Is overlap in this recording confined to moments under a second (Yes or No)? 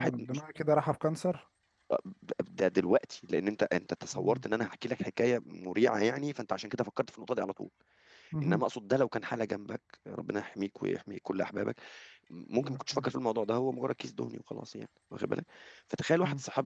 Yes